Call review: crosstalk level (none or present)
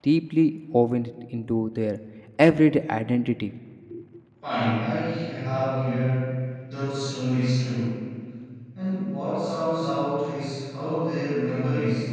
none